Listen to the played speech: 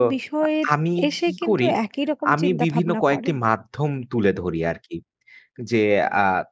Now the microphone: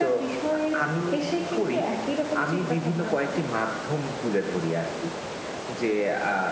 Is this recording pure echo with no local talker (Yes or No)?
Yes